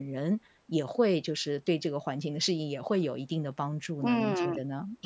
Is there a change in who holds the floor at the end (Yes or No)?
Yes